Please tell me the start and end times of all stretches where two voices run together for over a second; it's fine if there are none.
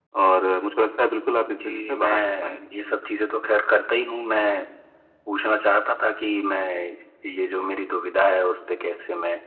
1.5-3.0

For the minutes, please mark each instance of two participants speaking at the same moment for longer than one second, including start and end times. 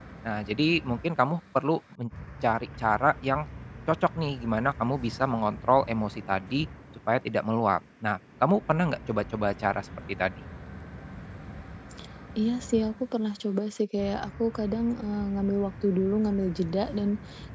none

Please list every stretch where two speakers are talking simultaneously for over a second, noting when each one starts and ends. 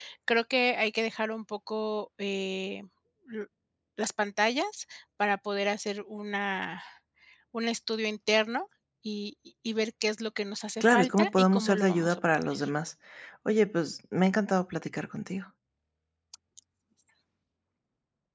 10.8-12.6

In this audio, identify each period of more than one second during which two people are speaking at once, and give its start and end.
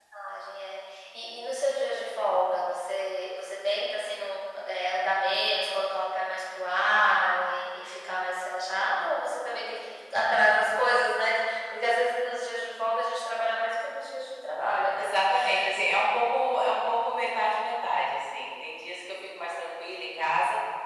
none

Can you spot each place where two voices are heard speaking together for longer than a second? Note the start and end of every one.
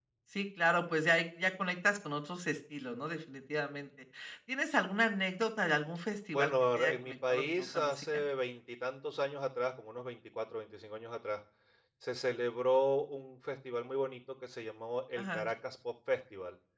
6.3-8.2

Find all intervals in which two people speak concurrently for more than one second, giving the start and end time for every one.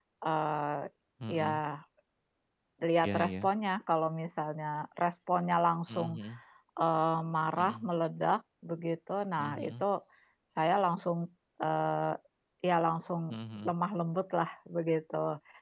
none

